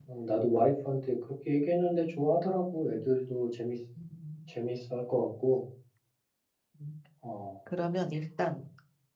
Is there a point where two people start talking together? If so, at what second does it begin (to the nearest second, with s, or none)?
none